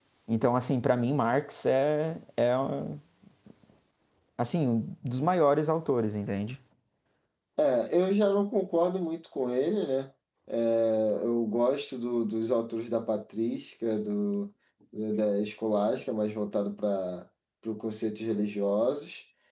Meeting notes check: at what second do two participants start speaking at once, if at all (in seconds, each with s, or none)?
none